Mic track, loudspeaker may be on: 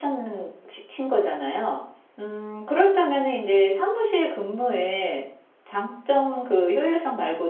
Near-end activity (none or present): present